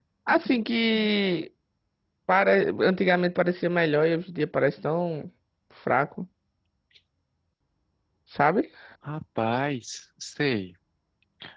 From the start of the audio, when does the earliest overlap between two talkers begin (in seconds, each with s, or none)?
none